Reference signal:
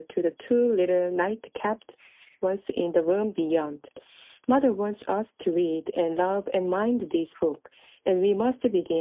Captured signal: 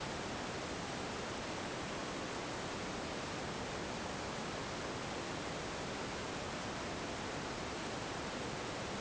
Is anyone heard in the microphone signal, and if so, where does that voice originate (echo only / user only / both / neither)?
neither